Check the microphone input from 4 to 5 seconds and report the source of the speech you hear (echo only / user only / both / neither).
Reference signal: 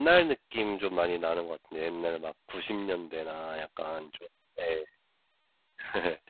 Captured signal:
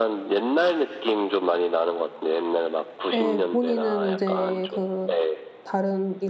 both